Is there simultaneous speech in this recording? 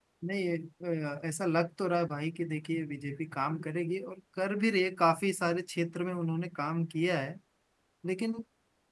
No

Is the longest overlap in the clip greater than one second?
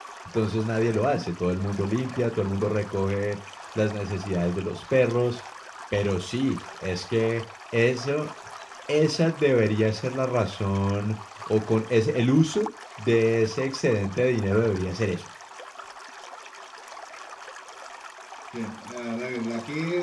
No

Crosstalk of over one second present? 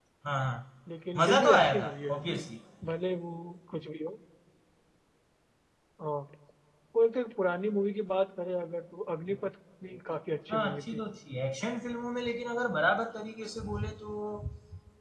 Yes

